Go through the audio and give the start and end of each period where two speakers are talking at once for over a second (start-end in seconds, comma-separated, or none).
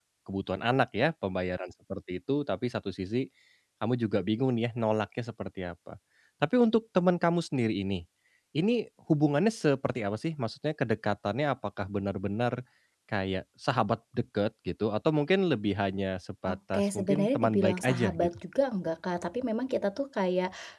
16.5-18.3